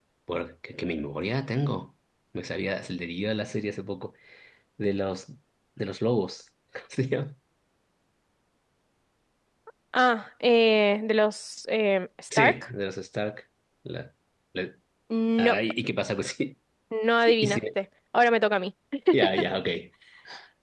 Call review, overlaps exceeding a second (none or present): none